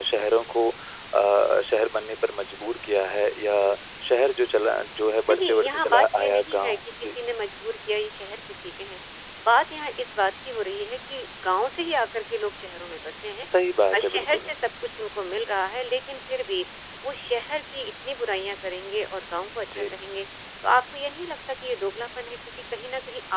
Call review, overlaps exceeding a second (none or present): present